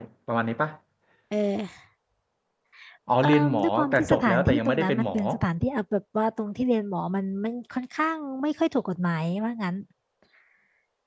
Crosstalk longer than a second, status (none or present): present